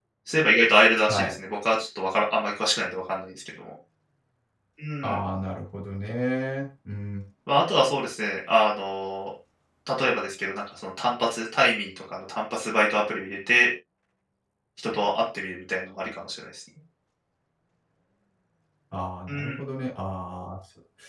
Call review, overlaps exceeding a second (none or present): none